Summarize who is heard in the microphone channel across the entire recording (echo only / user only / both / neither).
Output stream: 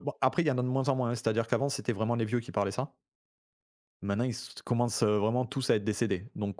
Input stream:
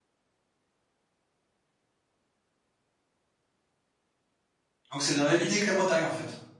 user only